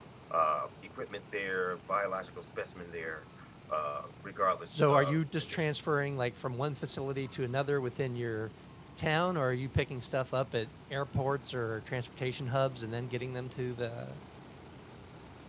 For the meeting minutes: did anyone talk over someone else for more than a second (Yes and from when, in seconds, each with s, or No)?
Yes, from 4.7 s